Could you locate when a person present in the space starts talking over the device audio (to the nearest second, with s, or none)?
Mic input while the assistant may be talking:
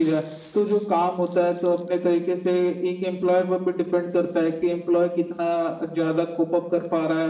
none